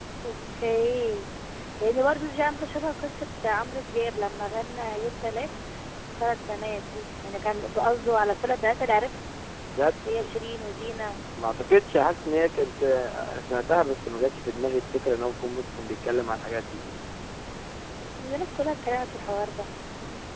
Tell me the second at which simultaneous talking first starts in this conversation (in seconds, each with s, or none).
none